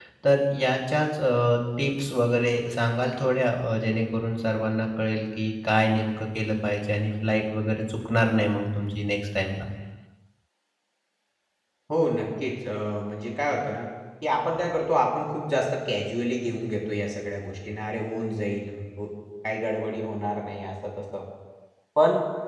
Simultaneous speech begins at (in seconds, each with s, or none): none